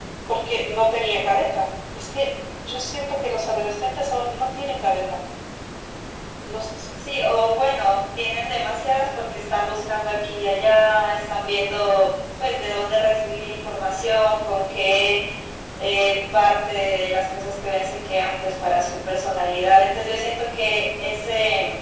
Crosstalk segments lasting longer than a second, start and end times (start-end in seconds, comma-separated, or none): none